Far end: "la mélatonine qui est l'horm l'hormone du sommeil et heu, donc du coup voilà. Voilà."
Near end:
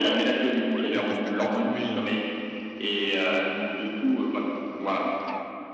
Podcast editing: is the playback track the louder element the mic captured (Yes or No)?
Yes